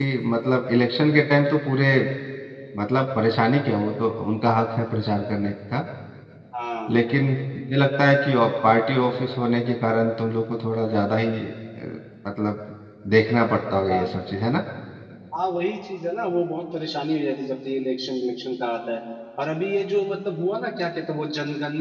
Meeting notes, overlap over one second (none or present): none